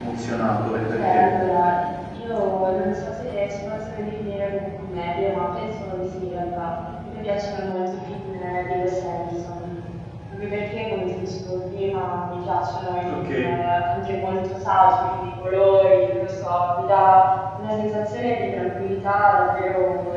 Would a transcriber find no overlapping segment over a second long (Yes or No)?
Yes